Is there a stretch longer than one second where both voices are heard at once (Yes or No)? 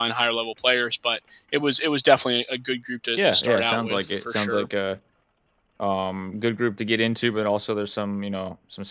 Yes